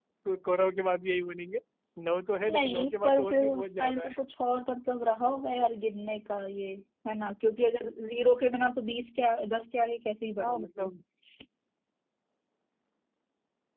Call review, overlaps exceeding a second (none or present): present